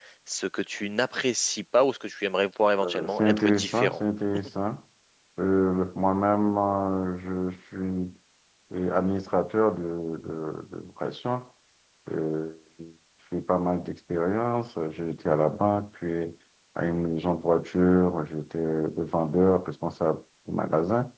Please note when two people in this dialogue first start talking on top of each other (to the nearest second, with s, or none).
3 s